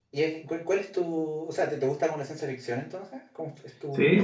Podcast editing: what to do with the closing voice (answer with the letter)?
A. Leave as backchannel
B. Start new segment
B